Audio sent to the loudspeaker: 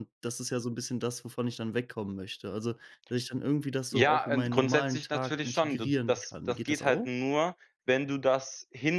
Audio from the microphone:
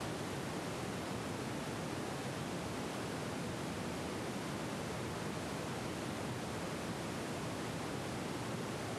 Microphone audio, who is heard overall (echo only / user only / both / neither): neither